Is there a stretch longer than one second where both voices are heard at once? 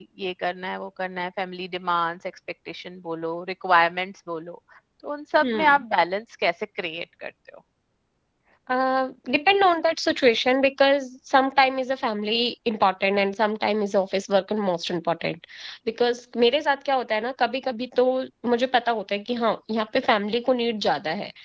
No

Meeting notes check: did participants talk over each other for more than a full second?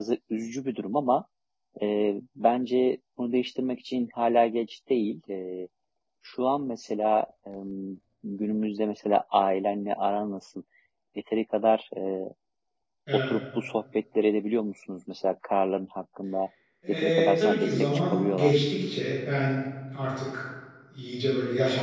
Yes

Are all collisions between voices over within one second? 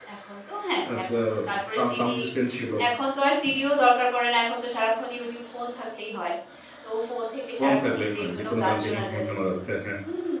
No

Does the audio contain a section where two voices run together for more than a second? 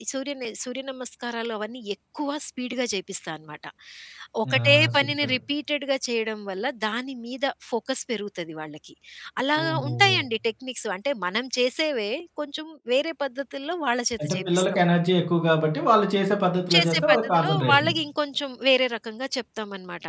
Yes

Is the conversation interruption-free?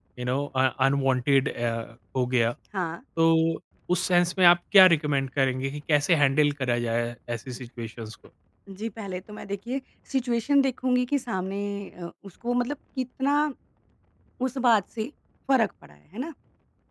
Yes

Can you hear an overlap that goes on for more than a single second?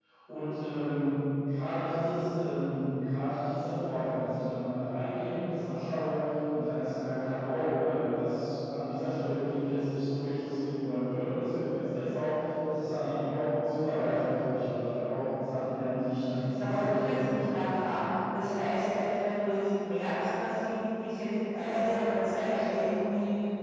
Yes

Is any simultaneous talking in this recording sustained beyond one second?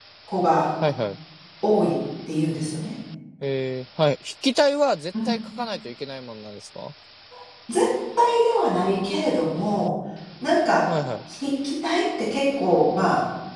No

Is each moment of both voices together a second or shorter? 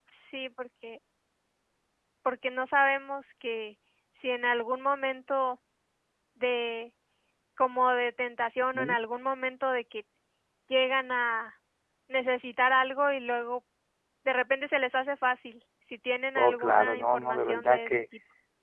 No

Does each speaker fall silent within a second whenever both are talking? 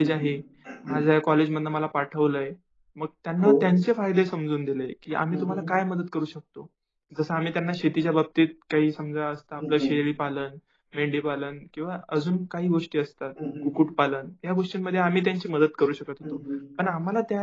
Yes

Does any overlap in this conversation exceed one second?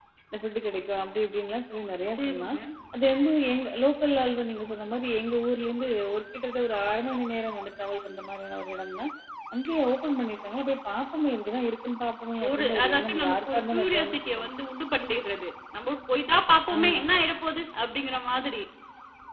Yes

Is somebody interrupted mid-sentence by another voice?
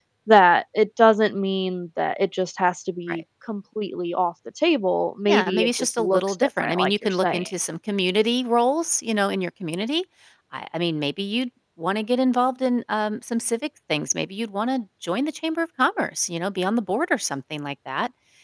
Yes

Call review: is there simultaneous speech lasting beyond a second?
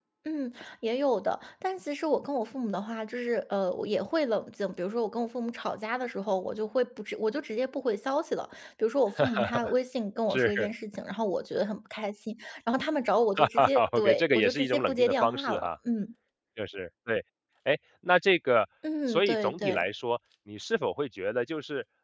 Yes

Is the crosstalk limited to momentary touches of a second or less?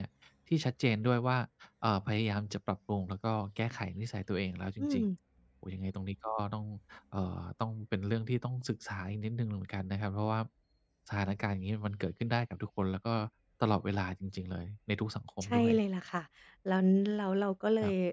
Yes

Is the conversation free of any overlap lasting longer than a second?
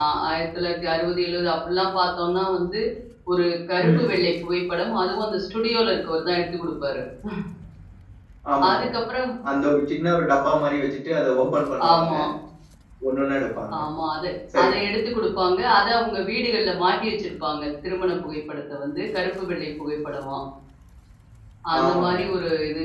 Yes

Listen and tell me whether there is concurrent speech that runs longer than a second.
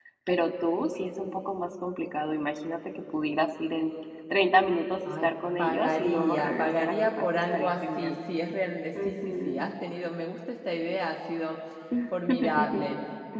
Yes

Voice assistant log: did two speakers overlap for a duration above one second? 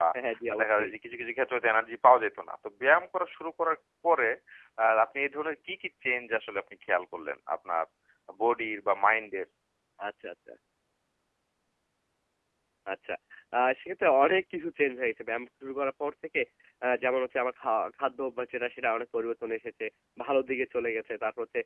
No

